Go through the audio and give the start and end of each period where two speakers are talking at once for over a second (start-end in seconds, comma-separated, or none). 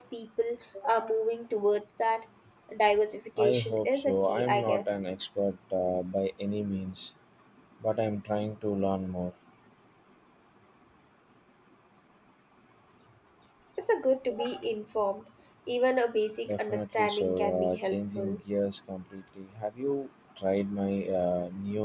3.4-5.1, 16.5-18.4